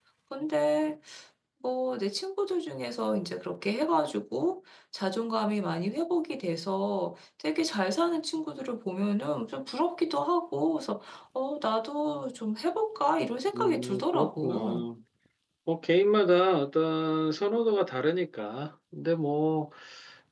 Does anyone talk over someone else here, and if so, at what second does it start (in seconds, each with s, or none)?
13.5 s